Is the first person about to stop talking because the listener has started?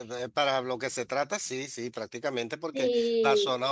No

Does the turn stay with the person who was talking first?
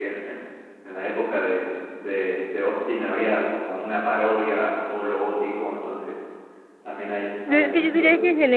No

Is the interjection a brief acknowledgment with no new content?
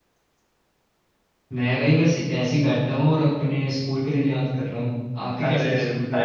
No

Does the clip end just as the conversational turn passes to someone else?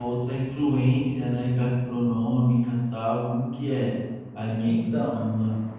Yes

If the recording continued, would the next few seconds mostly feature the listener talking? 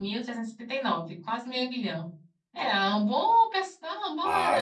Yes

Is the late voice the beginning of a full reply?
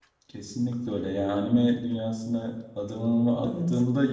No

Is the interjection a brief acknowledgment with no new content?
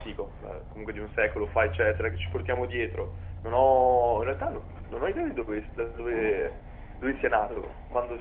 Yes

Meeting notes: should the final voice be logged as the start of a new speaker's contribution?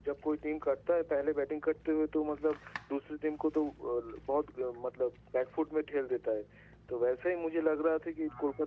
No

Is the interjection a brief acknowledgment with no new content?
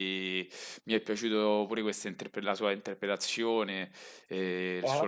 Yes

